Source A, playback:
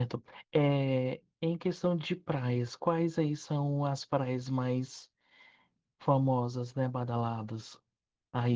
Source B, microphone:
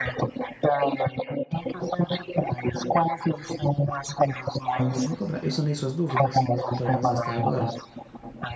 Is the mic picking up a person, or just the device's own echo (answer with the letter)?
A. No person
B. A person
B